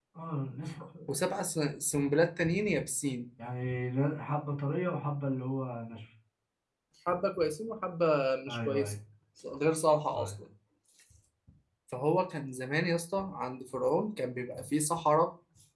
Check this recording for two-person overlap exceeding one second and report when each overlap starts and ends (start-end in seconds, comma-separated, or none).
none